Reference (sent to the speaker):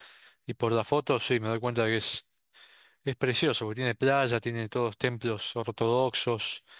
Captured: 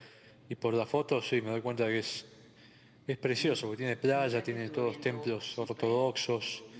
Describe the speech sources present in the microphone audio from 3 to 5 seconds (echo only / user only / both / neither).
both